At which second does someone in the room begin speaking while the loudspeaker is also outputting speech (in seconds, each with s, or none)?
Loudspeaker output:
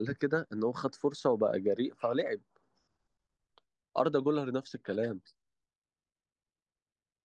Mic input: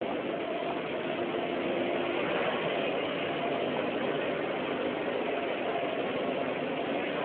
none